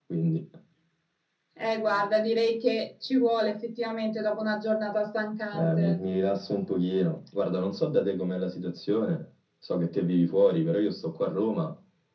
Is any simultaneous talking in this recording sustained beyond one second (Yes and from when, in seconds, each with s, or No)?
No